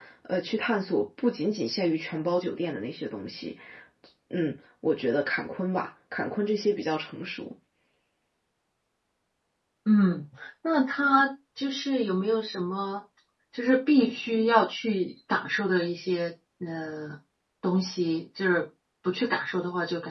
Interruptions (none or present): none